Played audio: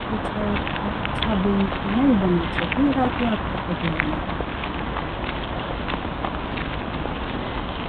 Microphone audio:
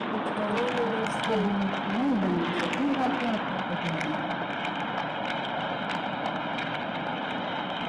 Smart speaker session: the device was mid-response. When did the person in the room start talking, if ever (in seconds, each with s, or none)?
0.4 s